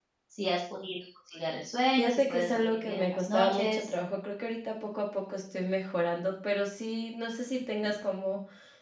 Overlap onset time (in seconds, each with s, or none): 2.0 s